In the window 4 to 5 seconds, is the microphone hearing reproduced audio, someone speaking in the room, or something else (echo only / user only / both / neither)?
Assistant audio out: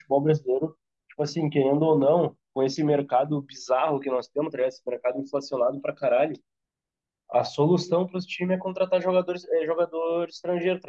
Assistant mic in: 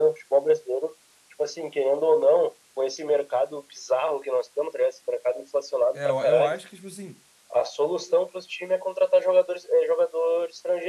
echo only